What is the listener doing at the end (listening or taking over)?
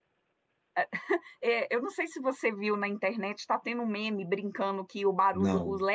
listening